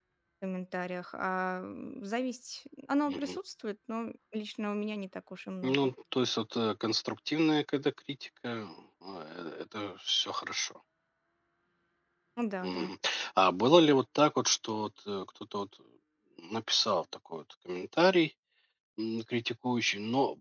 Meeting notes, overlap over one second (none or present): none